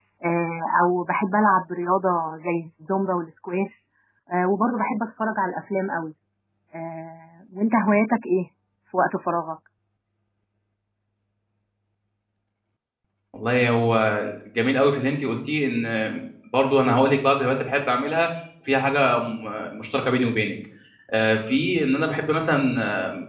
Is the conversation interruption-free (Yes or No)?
Yes